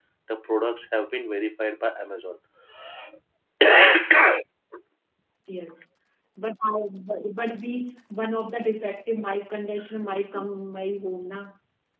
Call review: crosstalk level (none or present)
none